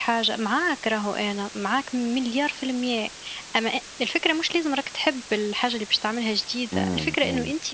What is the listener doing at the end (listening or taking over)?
listening